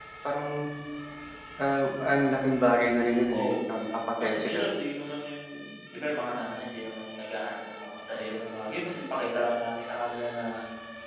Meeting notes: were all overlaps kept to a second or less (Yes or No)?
Yes